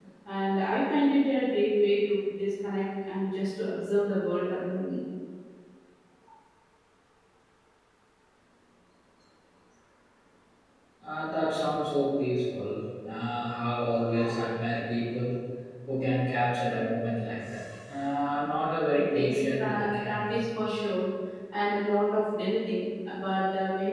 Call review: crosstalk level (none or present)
present